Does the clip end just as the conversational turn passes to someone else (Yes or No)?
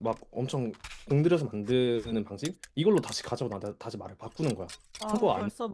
Yes